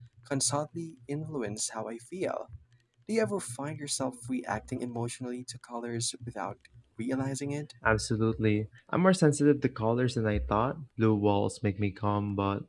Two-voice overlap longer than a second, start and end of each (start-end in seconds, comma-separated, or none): none